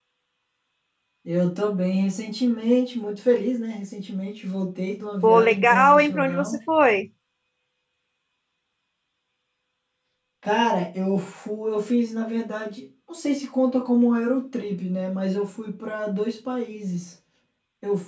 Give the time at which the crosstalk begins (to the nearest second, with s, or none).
5 s